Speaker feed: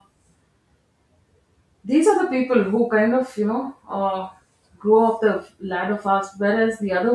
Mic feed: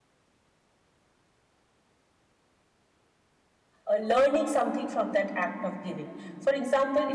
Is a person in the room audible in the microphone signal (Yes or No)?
Yes